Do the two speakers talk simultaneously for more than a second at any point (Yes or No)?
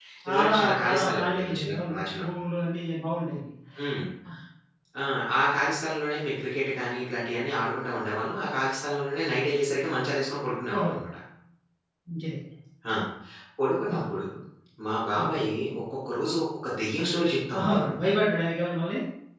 Yes